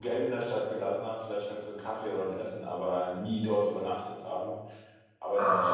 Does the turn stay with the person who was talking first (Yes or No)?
Yes